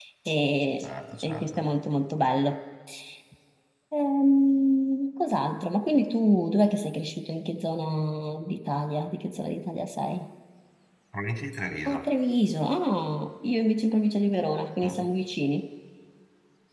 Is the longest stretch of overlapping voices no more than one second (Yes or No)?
Yes